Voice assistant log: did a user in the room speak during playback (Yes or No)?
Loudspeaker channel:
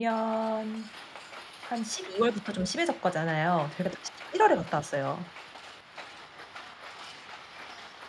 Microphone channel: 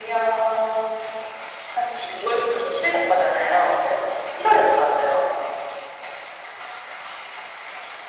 No